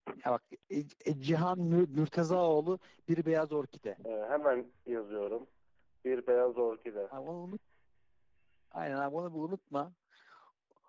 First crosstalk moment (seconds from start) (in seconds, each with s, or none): none